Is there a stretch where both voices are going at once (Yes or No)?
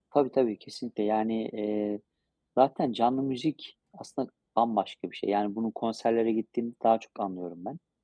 No